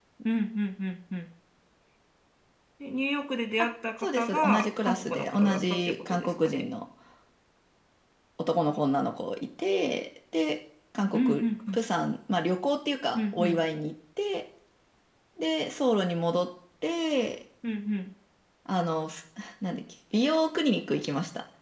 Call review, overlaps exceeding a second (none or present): present